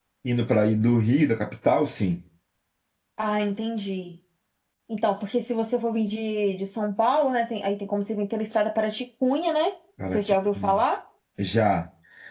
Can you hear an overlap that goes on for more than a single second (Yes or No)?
No